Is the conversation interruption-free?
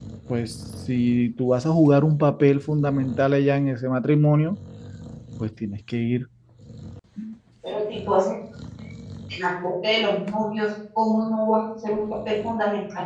Yes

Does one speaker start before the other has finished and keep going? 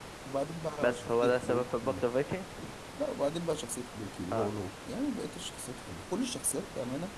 Yes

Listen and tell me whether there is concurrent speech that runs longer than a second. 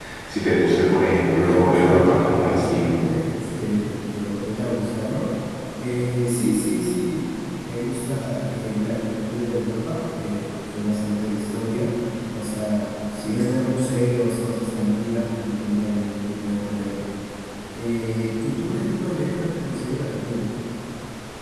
Yes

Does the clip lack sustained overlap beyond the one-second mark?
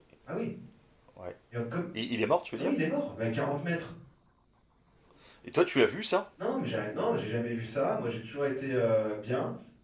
Yes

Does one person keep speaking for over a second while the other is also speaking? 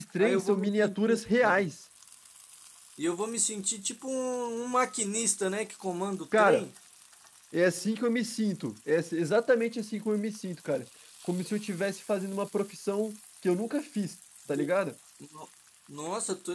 Yes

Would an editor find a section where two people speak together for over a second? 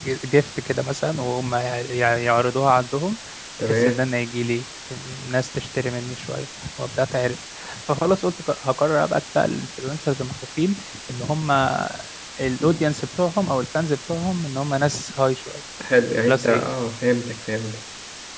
No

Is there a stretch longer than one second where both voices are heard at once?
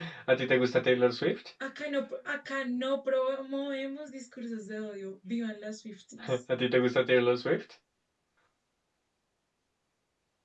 No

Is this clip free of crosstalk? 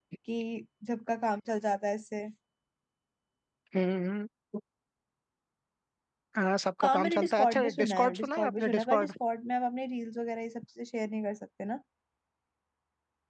No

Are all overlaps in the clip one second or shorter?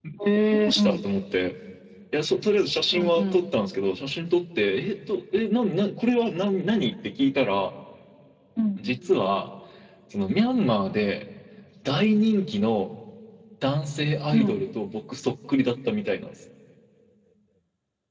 Yes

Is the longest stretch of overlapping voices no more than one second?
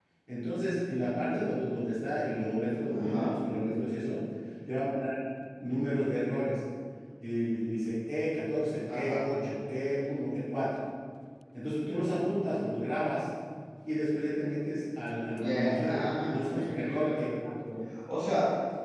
No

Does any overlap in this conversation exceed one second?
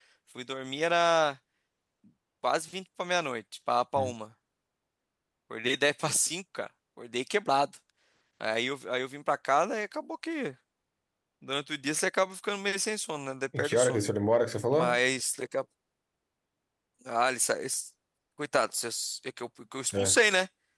No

